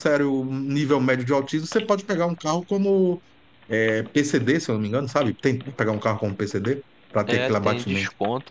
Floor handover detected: Yes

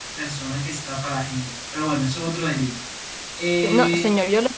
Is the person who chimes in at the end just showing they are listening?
No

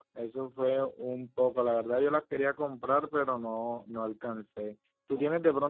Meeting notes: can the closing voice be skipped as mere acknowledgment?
Yes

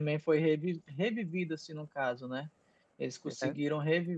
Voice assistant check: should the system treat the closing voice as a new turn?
No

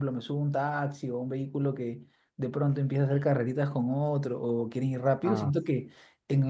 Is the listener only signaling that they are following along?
Yes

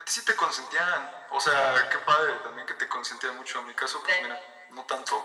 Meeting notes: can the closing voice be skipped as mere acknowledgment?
Yes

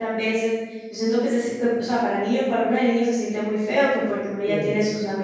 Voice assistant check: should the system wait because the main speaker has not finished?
Yes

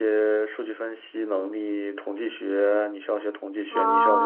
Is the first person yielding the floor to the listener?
No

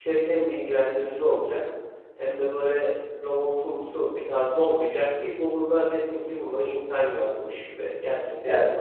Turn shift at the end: No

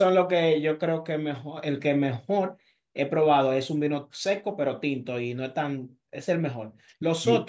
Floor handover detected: No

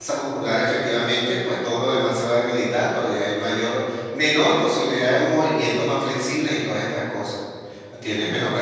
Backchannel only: Yes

